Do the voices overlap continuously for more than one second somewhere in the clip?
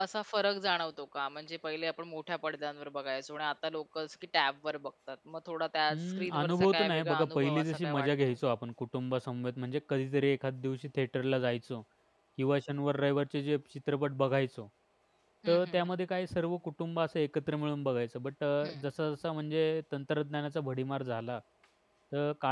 Yes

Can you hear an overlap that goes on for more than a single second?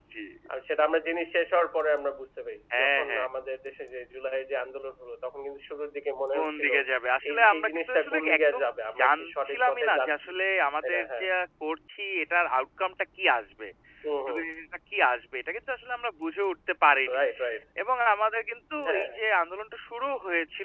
Yes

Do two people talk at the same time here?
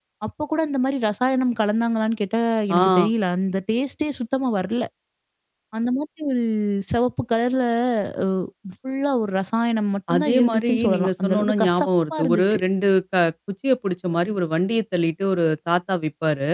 Yes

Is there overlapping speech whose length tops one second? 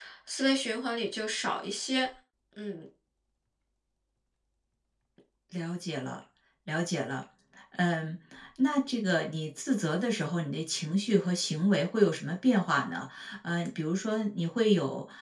No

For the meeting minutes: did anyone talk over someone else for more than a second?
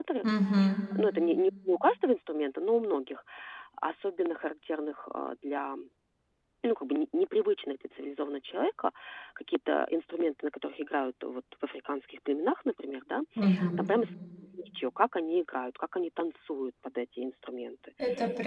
No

